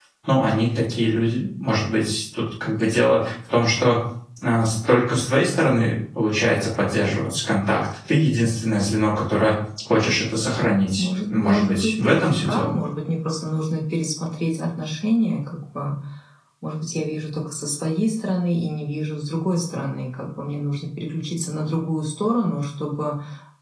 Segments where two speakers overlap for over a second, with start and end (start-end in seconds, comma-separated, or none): 11.0-12.8